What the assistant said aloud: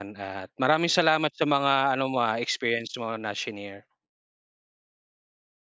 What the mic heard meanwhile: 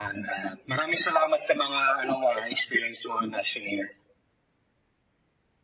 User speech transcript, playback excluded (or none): none